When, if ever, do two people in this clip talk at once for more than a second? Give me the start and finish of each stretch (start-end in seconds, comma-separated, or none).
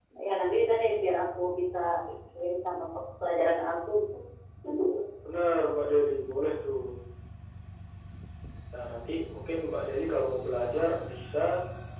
none